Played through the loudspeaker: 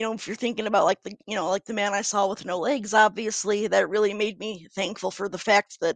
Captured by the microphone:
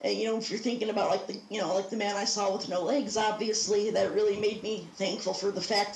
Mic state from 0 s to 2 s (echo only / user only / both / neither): echo only